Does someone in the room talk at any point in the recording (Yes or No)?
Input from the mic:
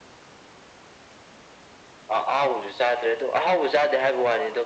No